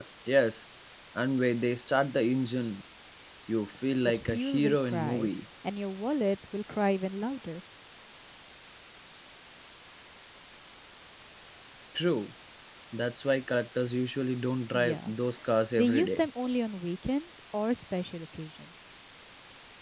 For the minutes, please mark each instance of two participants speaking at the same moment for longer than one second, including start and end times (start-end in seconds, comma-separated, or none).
4.0-5.3